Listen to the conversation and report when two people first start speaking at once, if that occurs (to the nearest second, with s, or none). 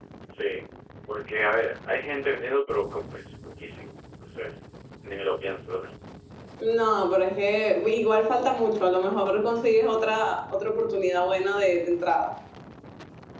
none